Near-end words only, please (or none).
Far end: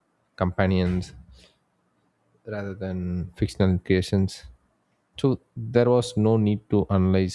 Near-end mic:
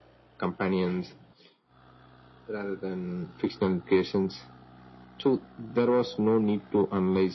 none